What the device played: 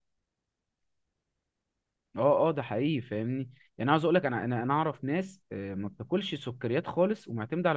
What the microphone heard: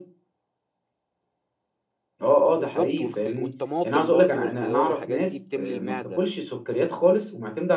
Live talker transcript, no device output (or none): بالظبط والخي... والطماطم برضو والخيار والحاجات دي بتملي المعدة